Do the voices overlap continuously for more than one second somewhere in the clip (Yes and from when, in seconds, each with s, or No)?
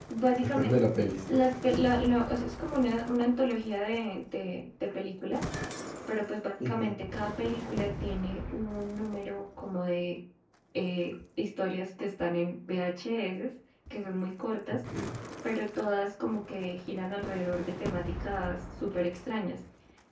No